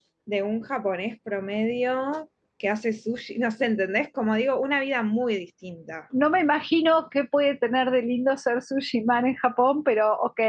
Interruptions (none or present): none